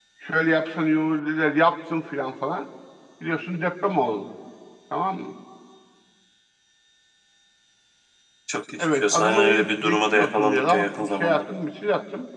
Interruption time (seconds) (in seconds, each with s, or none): 8.8 s